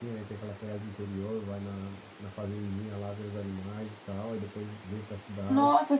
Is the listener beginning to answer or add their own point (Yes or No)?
Yes